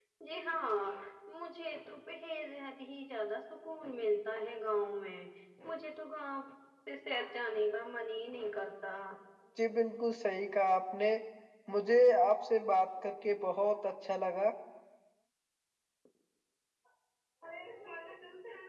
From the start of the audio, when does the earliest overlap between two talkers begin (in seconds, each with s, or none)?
none